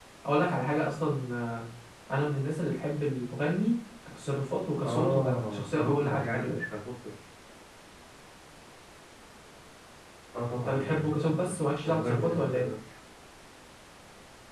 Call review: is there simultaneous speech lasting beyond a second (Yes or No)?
Yes